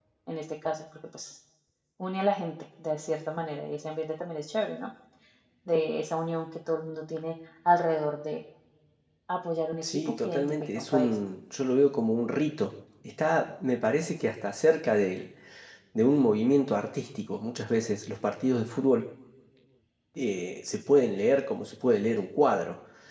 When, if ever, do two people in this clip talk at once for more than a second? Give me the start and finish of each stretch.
9.8-11.2

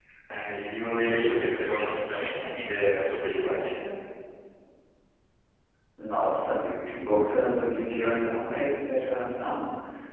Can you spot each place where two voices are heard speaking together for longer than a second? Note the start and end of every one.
none

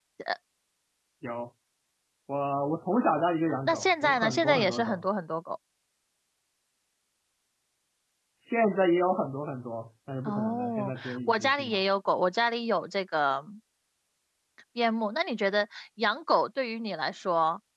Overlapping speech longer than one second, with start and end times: 3.6-5.0, 10.2-11.8

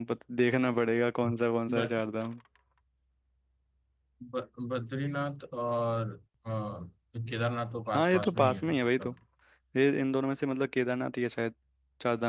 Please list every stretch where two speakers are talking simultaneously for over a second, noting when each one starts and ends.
7.9-9.1

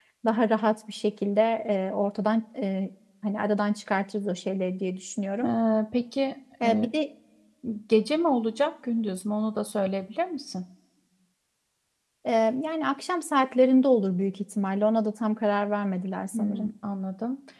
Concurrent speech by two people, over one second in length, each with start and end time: none

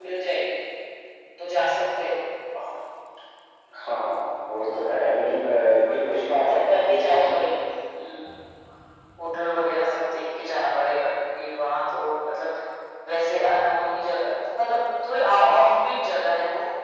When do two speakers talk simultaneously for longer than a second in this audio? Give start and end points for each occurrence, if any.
5.9-7.3

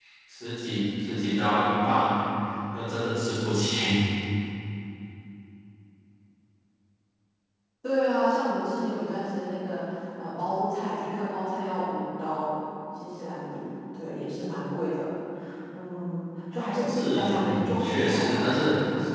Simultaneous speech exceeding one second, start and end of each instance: 16.8-18.4

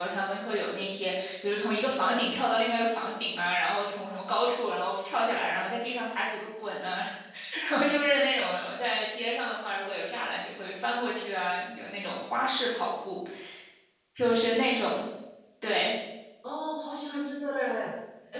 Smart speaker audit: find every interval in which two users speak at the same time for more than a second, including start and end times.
none

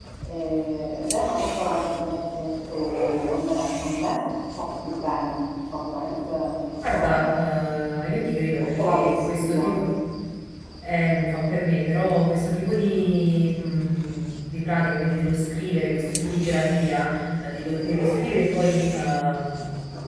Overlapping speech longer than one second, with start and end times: 8.6-9.9

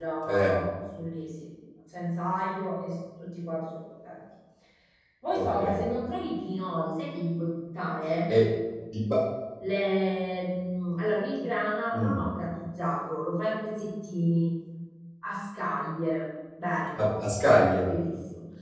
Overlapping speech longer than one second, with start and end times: none

